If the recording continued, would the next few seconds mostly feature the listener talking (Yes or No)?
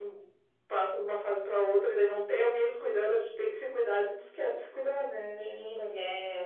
Yes